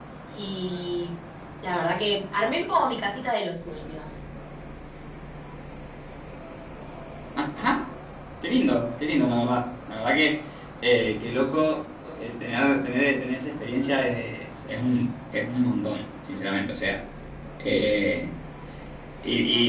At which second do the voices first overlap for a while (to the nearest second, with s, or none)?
none